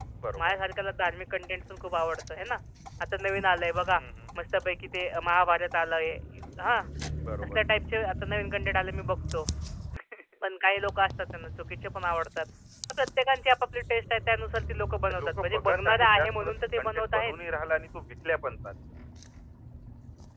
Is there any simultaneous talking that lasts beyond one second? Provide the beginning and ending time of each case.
15.1-17.3

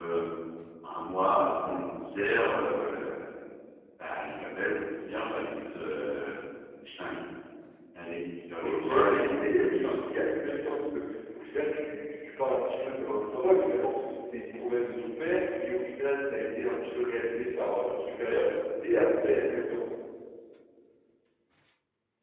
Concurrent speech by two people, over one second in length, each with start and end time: 8.6-9.9

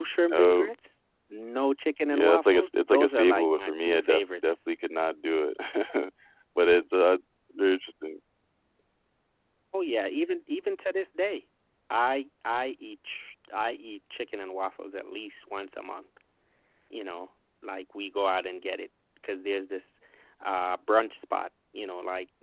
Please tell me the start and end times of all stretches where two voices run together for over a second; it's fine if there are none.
2.1-4.6

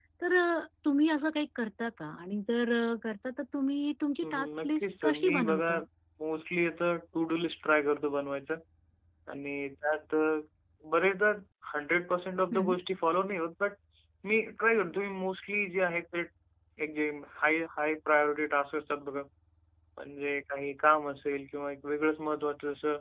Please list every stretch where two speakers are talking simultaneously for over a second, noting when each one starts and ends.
4.2-5.7

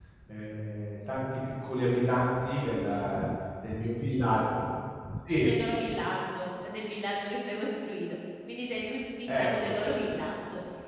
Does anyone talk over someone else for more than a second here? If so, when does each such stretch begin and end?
none

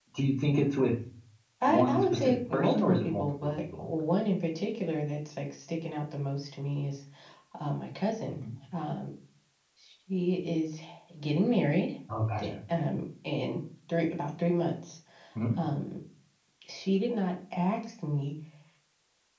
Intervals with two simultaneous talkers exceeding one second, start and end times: 1.6-3.9

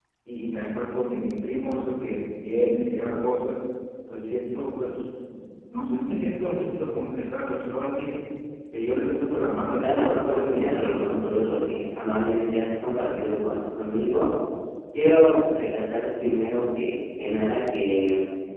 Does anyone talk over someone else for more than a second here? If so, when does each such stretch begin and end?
9.8-11.5

